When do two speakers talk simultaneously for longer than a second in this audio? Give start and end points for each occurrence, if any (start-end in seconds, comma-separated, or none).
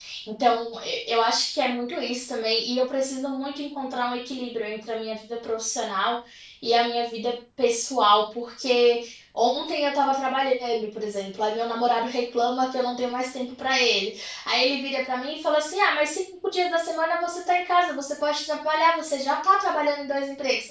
none